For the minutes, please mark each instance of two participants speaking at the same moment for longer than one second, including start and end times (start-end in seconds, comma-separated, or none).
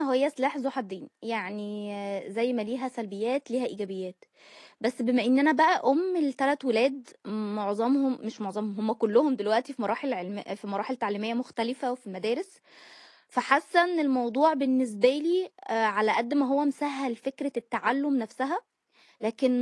none